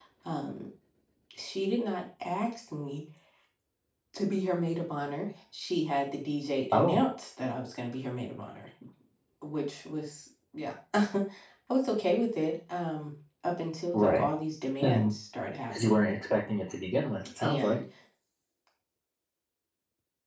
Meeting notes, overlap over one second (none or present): none